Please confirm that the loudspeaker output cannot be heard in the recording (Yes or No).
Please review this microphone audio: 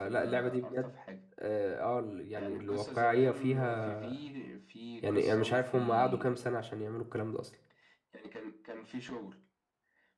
No